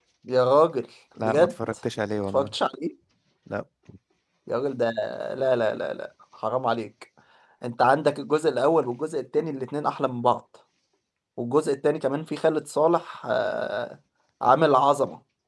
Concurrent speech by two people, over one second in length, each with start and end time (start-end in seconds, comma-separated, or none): none